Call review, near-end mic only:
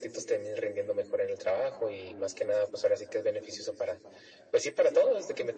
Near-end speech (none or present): none